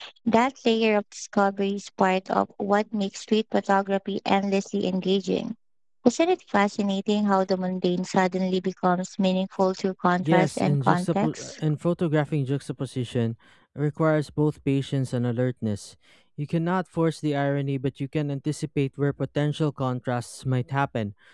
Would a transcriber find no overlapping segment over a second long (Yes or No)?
No